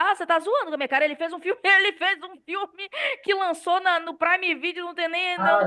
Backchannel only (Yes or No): No